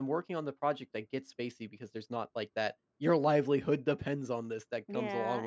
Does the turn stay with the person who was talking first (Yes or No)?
No